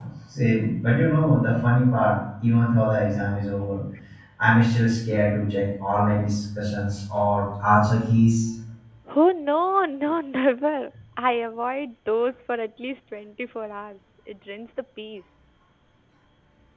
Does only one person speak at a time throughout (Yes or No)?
Yes